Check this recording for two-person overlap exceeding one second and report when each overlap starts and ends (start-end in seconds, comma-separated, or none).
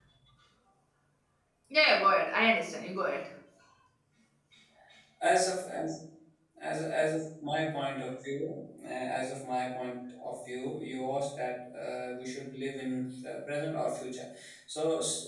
none